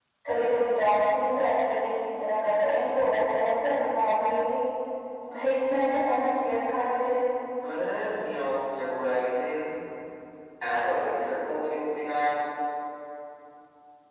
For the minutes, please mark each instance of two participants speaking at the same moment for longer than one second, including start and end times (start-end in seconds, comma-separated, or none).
none